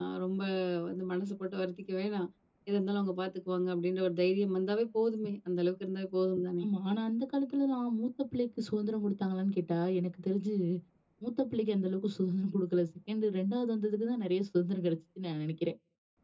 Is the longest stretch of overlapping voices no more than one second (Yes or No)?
Yes